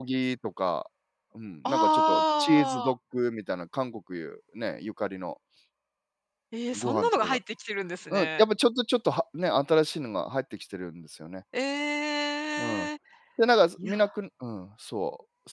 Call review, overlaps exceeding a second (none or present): present